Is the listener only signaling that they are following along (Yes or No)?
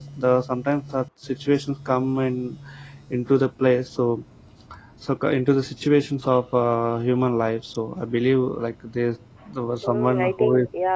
No